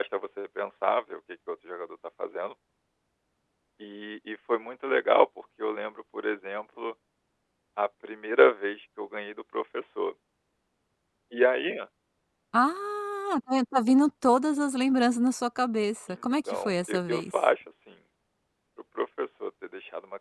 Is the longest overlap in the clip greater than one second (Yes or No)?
Yes